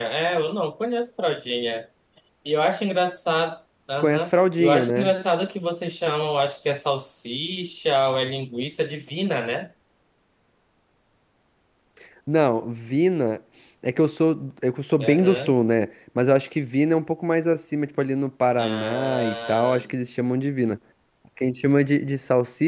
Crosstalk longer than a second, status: present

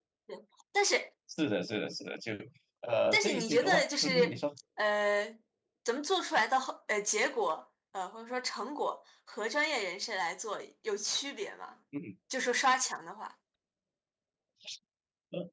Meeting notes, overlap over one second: present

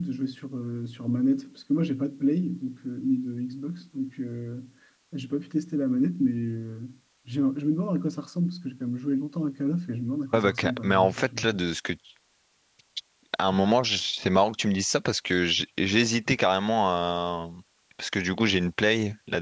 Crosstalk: present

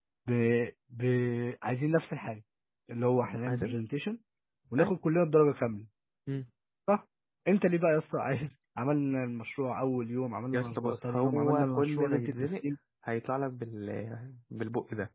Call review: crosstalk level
present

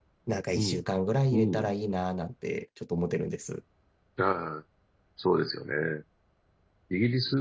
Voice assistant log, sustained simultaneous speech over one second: none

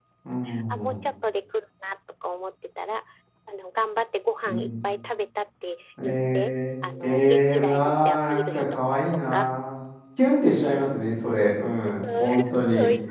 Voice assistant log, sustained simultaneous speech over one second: present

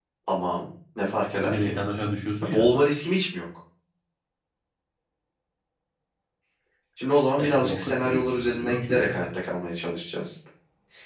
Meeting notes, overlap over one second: present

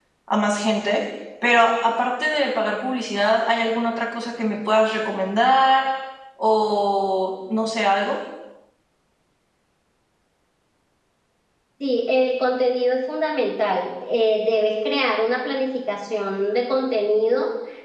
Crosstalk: none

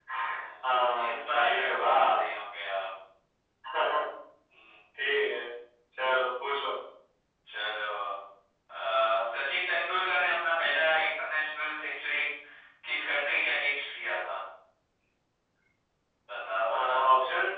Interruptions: present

